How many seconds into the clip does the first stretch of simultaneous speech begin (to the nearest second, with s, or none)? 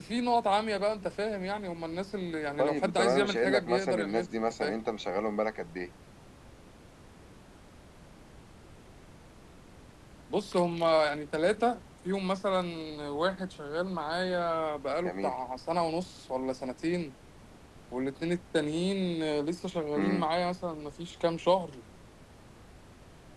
3 s